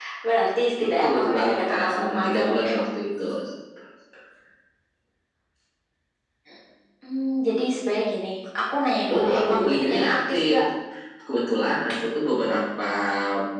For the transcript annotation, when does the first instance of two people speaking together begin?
1 s

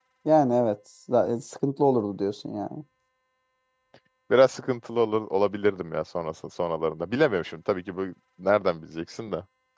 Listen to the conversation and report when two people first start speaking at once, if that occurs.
none

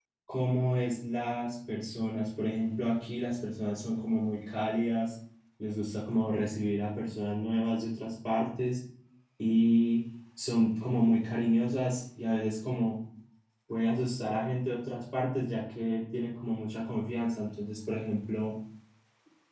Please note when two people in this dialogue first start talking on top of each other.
none

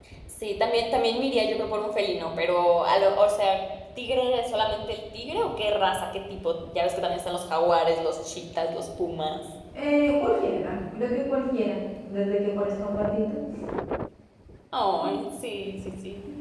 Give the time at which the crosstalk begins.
none

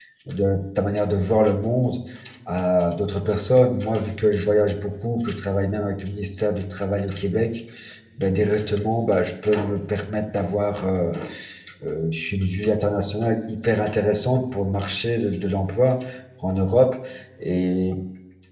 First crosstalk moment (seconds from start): none

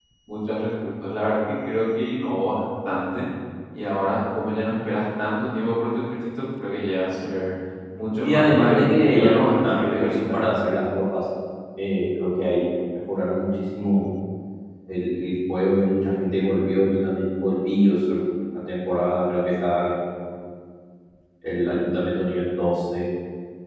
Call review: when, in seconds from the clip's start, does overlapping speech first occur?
8 s

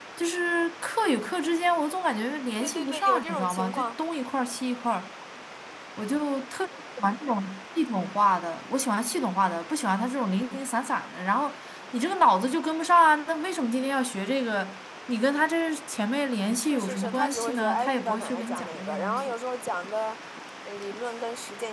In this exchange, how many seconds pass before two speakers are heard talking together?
3 s

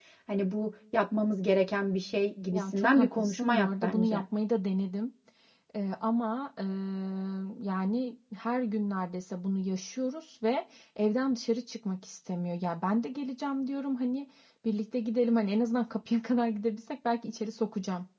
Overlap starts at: 3 s

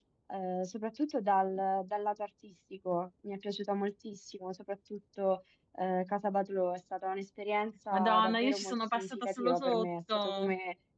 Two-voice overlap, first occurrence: 8 s

